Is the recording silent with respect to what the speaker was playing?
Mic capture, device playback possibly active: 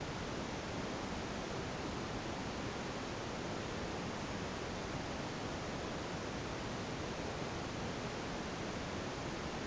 Yes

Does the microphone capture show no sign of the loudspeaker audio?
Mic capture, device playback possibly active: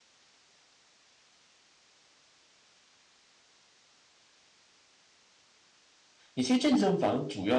Yes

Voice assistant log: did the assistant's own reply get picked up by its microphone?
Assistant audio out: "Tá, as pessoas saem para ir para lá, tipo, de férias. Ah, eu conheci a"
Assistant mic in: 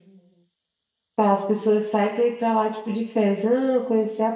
Yes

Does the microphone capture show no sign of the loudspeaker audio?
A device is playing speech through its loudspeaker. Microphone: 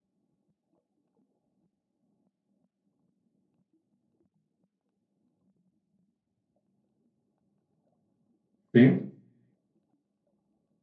Yes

